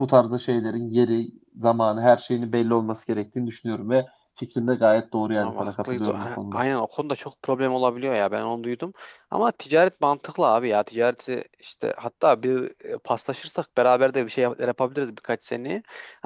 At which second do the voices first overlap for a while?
5.4 s

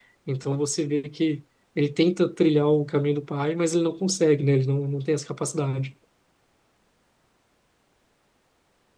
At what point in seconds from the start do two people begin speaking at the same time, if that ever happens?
none

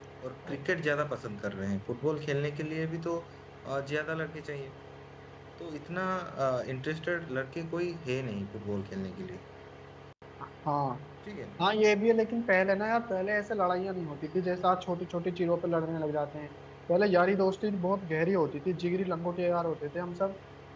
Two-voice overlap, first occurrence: none

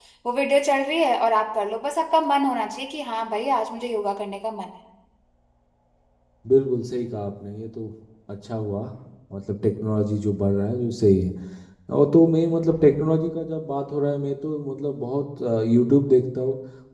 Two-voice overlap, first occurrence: none

